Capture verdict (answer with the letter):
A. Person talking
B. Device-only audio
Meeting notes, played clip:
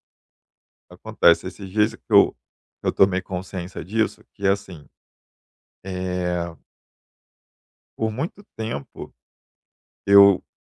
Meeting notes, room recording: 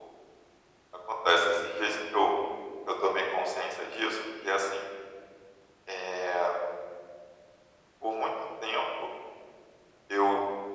B